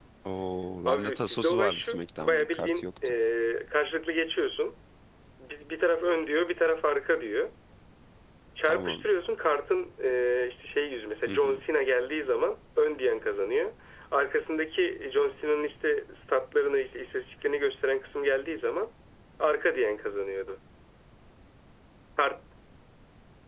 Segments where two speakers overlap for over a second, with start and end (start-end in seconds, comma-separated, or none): 0.9-3.1